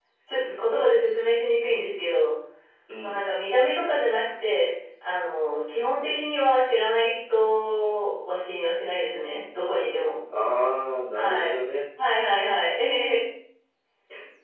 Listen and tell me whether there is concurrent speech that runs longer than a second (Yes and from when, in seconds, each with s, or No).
No